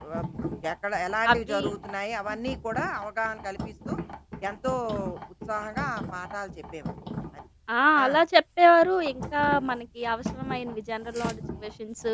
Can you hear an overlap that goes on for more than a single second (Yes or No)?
No